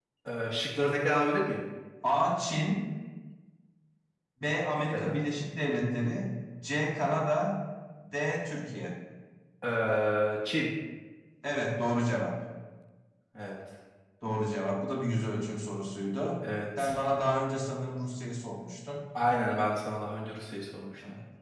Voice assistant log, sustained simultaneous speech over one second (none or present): none